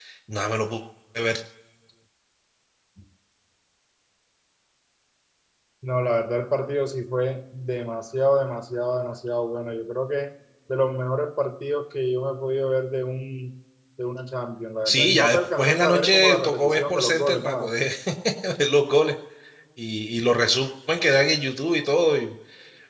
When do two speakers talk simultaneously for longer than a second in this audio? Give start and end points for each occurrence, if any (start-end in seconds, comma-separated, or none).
14.8-17.7